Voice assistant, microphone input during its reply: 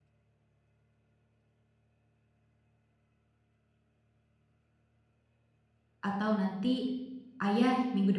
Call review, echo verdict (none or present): none